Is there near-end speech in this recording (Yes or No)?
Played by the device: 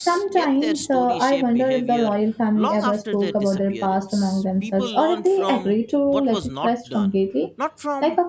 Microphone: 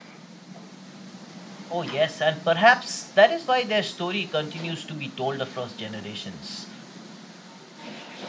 Yes